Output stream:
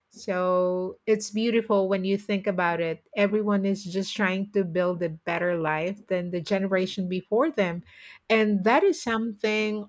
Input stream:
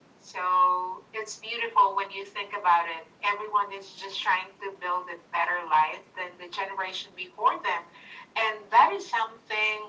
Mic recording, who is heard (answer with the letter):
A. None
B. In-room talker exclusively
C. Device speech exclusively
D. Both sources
C